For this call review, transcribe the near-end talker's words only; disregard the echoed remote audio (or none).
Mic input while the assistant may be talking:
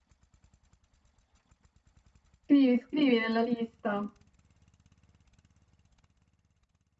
Scrivi, scrivi nella lista.